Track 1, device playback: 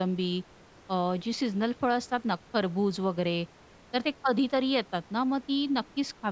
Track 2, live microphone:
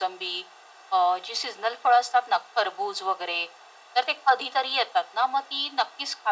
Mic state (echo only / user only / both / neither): echo only